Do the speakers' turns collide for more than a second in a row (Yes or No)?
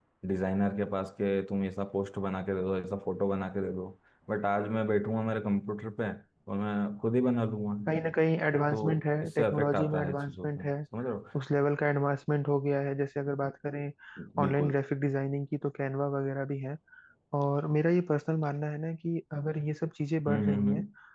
Yes